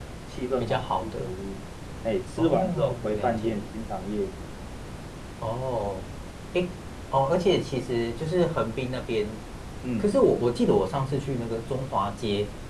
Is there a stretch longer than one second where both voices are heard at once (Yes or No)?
Yes